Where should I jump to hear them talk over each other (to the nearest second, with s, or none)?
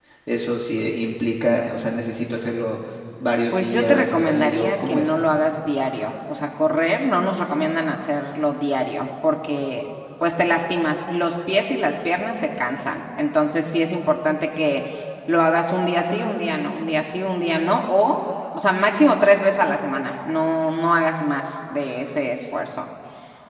4 s